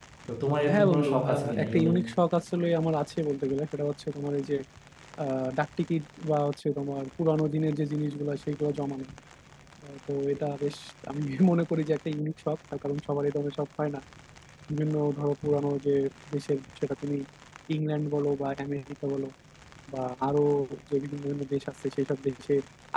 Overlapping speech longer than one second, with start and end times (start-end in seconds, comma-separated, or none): 0.7-1.9